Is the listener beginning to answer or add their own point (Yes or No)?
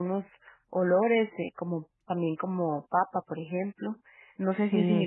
Yes